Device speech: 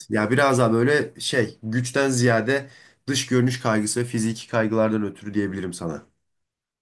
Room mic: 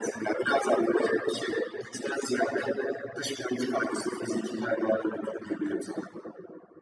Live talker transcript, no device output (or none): none